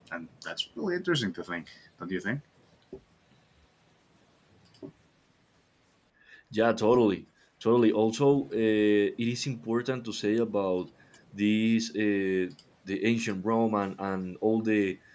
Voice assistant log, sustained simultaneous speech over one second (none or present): none